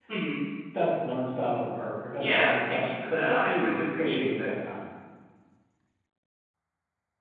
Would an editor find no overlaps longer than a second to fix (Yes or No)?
No